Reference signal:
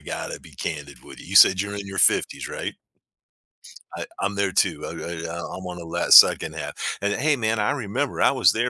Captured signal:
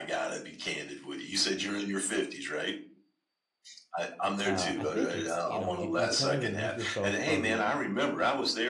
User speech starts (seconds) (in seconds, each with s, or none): 4.4 s